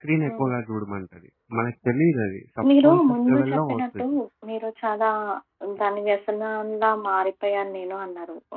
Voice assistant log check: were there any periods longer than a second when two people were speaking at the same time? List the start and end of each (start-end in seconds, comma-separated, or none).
2.8-4.0